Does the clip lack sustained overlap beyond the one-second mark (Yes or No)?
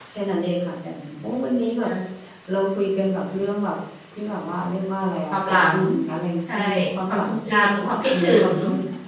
No